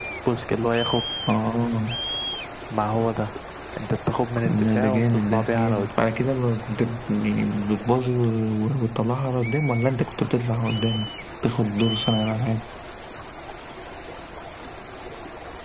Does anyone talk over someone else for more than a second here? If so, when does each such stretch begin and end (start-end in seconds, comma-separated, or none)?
4.6-6.1